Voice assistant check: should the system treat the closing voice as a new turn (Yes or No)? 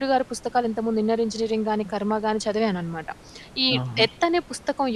No